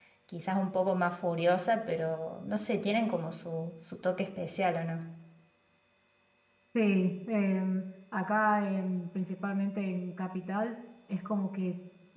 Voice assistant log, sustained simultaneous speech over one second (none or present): none